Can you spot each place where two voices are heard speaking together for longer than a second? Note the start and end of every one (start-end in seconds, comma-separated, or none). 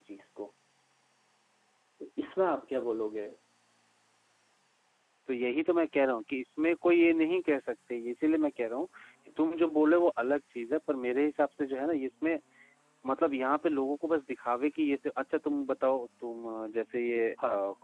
none